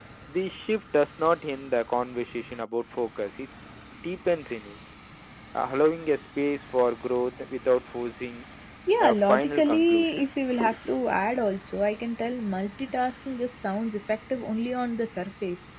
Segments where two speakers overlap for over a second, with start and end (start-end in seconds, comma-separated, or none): 9.1-10.3